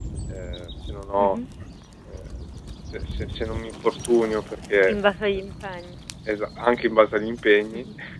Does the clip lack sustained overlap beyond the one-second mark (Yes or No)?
Yes